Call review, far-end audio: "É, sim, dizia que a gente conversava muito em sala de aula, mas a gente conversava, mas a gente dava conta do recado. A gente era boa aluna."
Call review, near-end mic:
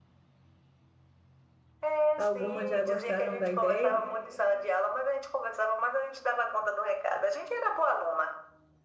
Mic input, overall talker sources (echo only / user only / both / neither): both